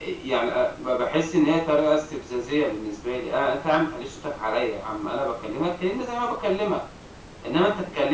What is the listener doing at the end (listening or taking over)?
listening